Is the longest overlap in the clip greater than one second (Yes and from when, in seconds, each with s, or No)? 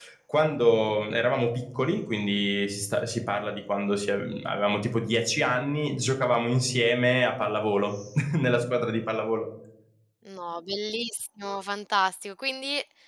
No